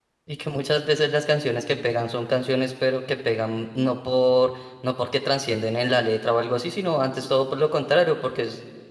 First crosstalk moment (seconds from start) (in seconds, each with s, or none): none